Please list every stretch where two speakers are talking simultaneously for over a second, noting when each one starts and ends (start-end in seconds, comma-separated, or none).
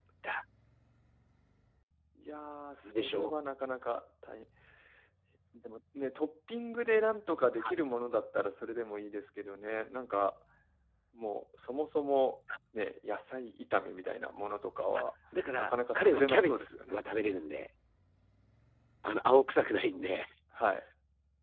15.6-17.0